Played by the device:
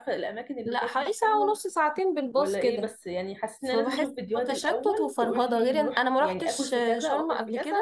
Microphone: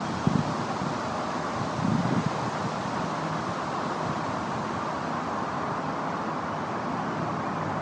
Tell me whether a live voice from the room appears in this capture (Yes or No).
No